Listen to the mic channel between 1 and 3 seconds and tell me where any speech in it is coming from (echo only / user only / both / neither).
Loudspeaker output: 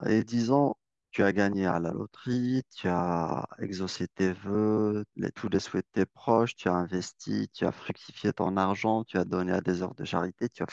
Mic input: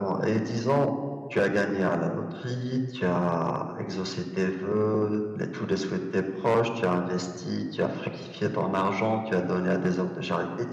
echo only